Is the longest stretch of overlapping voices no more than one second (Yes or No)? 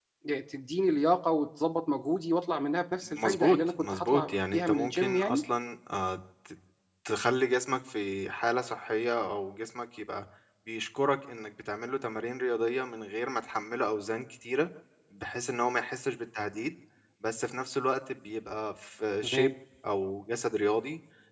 No